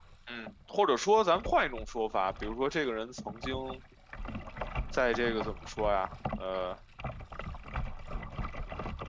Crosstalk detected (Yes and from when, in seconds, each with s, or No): No